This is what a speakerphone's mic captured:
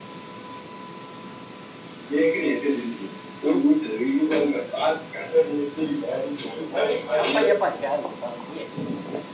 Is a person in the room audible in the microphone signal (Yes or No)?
Yes